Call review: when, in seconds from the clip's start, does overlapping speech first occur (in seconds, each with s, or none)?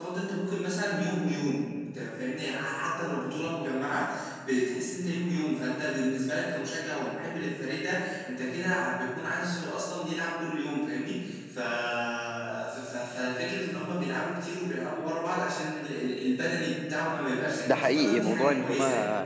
17.6 s